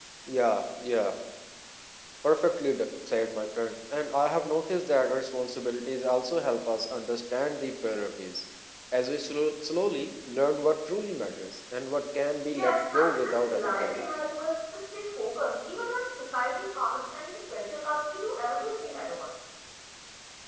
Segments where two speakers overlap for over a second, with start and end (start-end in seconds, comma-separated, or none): 12.5-14.0